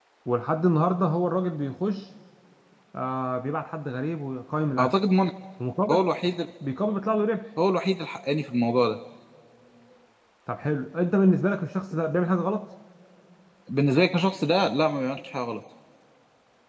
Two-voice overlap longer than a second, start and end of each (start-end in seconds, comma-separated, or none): none